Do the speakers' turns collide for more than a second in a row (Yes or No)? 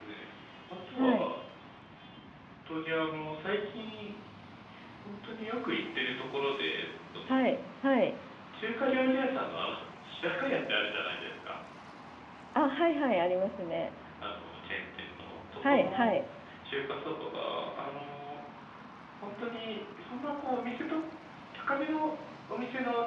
No